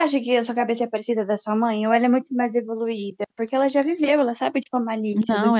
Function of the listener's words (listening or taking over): taking over